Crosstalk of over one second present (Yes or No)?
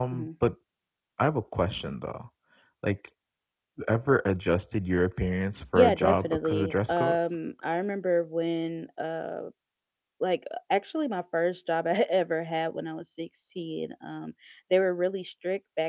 Yes